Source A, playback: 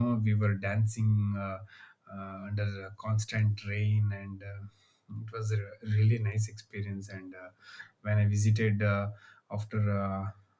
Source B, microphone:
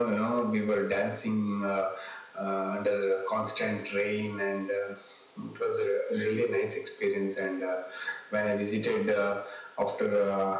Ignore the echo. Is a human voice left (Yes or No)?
No